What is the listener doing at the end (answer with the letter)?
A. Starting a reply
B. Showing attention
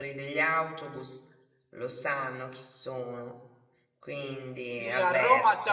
A